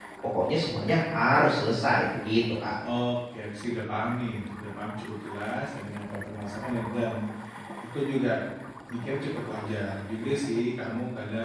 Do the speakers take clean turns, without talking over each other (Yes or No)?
Yes